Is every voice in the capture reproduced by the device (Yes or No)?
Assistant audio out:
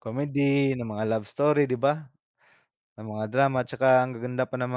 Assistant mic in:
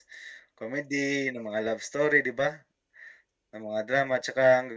Yes